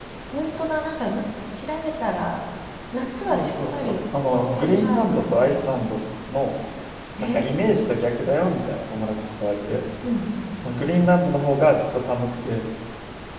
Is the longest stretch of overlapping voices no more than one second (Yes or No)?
No